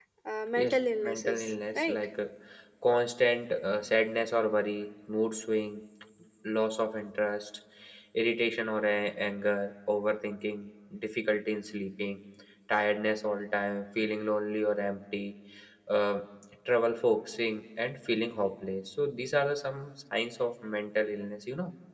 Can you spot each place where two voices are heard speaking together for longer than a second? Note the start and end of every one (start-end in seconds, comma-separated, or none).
0.6-2.0